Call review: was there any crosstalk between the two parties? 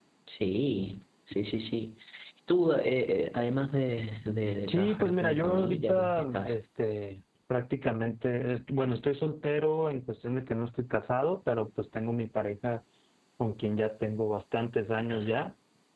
Yes, from 4.7 s

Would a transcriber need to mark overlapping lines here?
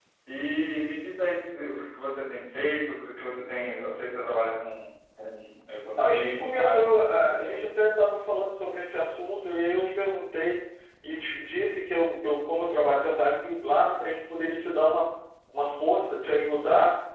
Yes, from 6.0 s

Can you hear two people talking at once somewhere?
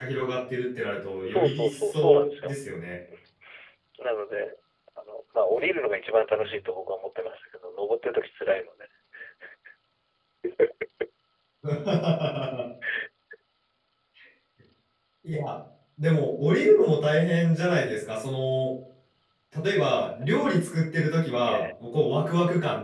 Yes, from 1.2 s

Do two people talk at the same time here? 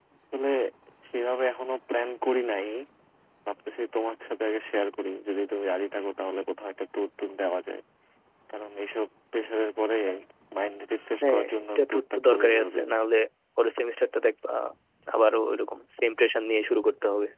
Yes, from 11.2 s

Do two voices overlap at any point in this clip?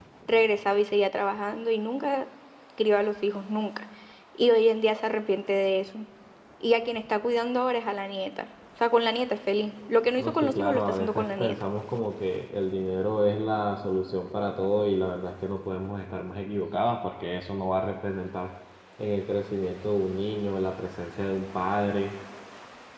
Yes, from 10.2 s

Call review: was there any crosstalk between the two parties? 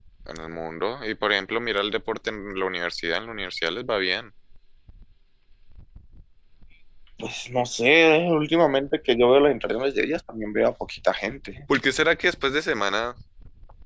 No

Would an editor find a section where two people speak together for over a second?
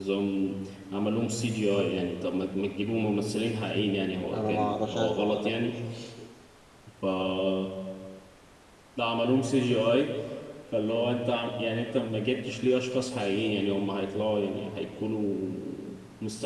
Yes, from 4.3 s

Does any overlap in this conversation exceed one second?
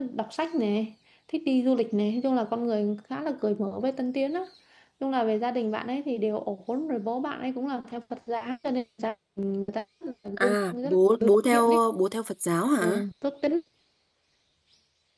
Yes, from 10.4 s

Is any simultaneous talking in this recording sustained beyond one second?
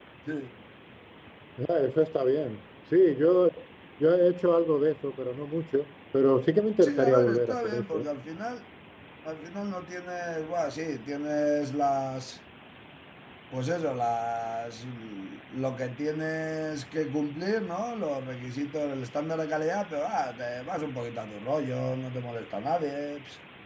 Yes, from 6.8 s

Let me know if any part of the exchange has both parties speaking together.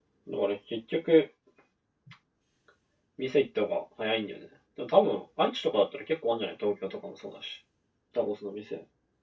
No

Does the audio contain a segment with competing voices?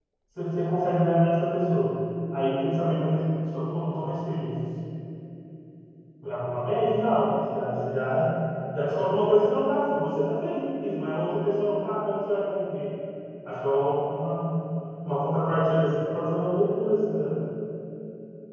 No

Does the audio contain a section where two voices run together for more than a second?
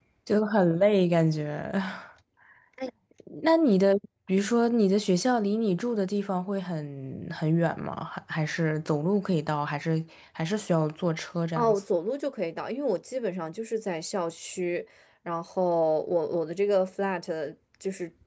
No

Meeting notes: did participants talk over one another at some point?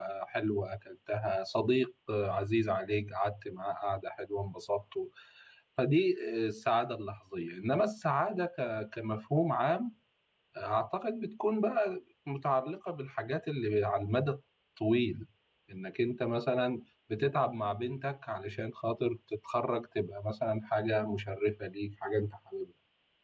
No

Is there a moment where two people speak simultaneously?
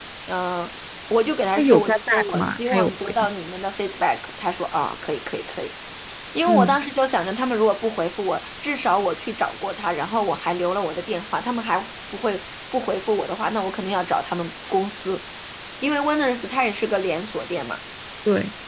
Yes, from 1.6 s

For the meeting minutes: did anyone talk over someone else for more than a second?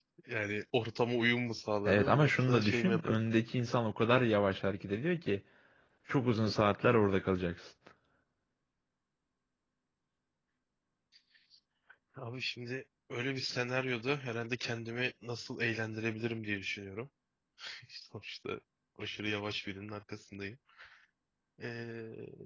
Yes, from 1.8 s

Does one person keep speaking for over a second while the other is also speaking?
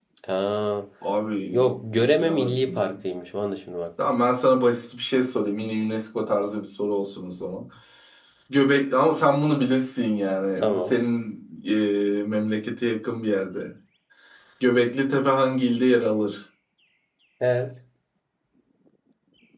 Yes, from 1.5 s

